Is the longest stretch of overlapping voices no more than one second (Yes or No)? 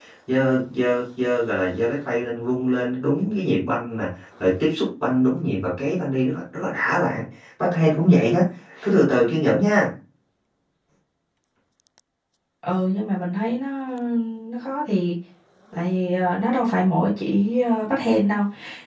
Yes